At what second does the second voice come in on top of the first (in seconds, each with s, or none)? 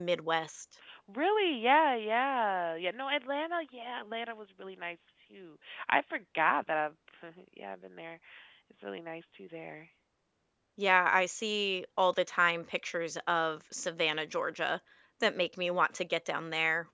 none